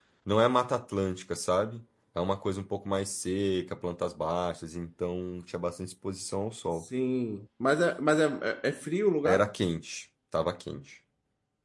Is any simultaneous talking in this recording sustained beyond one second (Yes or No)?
No